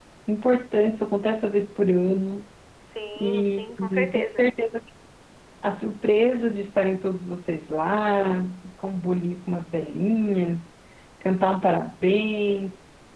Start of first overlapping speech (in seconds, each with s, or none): 3.2 s